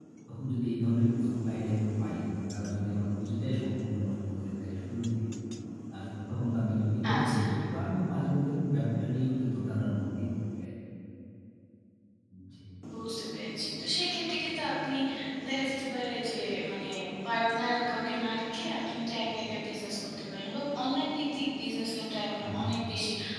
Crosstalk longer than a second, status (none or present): none